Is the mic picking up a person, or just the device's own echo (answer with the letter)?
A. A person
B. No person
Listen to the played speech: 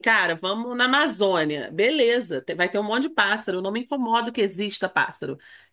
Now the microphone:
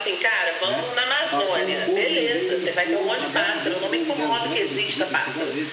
A